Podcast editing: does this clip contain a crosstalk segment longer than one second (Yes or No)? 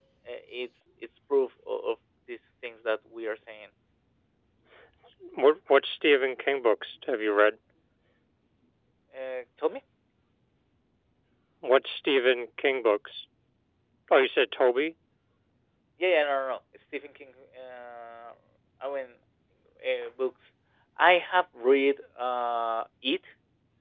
No